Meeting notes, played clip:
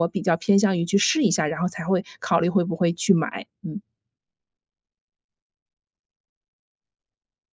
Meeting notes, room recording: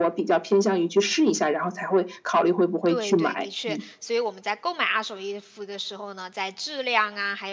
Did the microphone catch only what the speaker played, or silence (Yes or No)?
No